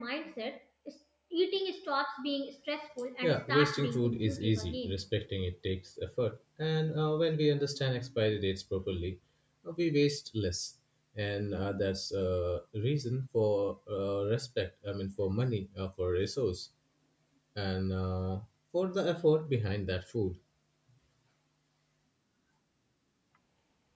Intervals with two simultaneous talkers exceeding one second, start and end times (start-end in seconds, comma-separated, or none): 3.2-5.0